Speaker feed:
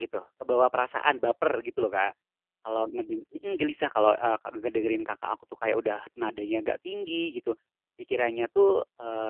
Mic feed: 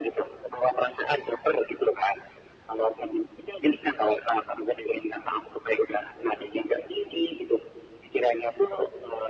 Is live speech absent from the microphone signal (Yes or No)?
Yes